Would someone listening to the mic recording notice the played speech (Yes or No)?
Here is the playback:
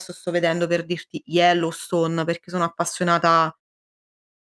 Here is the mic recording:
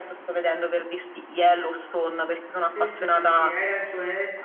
Yes